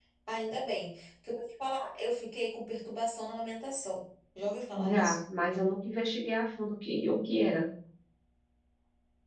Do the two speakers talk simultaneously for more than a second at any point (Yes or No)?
No